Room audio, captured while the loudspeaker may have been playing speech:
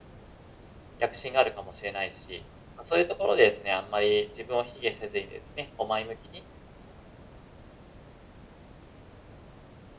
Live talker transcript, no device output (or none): 躍進があるかもしれないし、ま、そういうところでですね、あんまり自分を卑下せずにですね、こう前向きに